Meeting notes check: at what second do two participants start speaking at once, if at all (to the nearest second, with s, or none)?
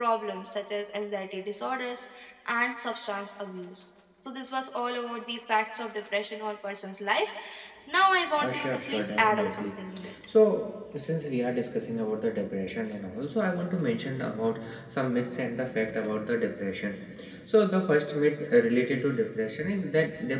8 s